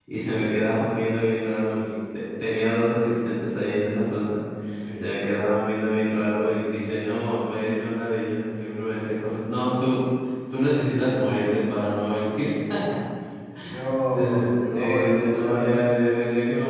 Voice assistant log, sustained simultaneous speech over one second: present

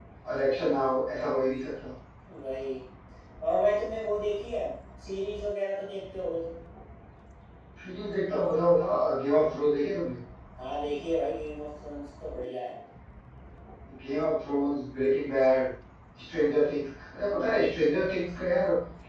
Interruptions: none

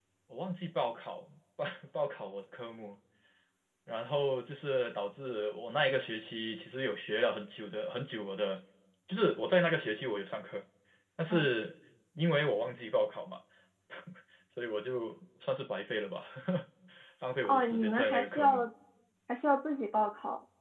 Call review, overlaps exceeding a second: present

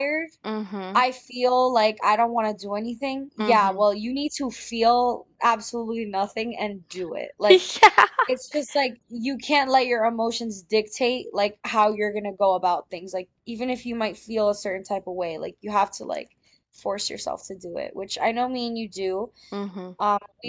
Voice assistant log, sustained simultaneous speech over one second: none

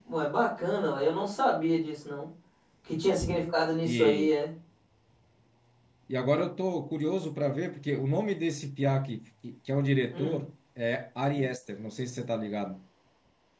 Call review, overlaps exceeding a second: none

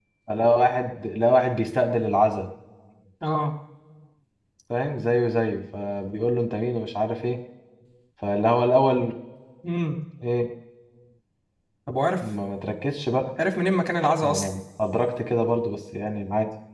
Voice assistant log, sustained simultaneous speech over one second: none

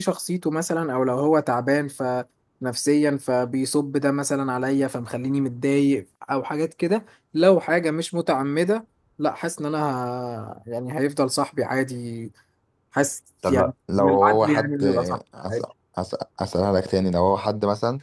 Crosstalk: present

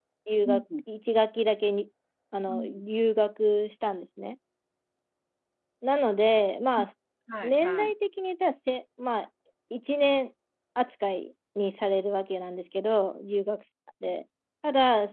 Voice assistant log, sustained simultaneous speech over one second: none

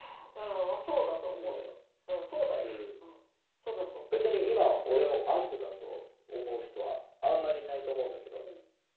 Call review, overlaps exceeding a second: none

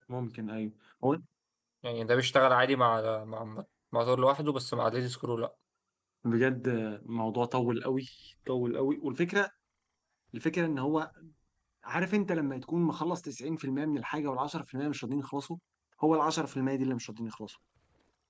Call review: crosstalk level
none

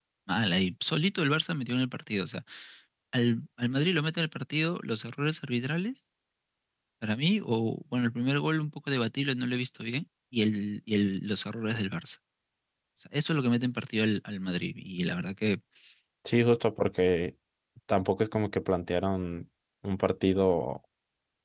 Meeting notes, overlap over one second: none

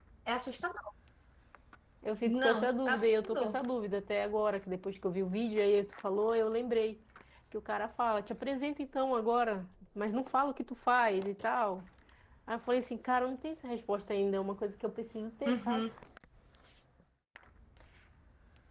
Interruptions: present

